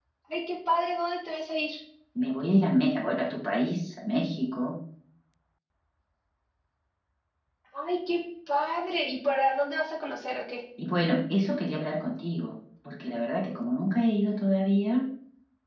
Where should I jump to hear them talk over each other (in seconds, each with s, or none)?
none